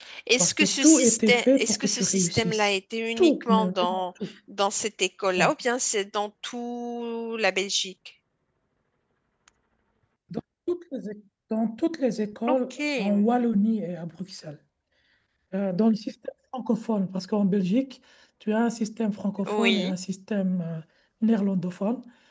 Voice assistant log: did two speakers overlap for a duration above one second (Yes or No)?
Yes